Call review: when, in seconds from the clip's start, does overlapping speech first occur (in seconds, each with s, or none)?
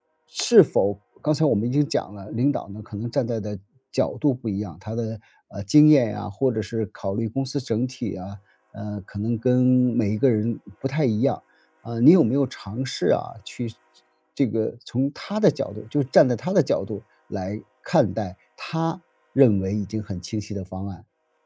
none